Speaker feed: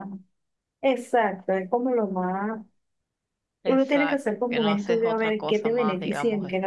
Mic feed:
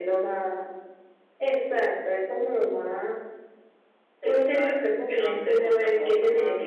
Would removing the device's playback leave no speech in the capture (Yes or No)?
Yes